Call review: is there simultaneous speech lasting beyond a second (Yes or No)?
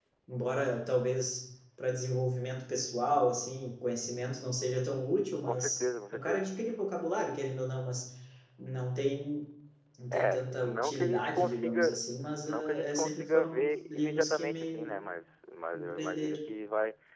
Yes